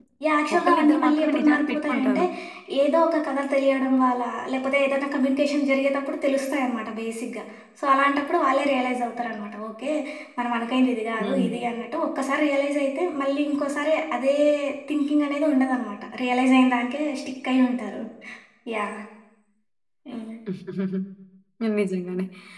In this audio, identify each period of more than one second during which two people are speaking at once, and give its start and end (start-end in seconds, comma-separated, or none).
0.6-2.2